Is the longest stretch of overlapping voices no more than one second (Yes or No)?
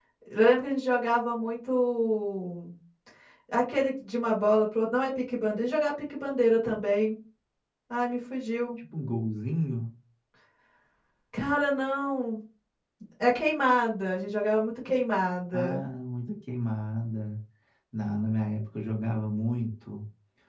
Yes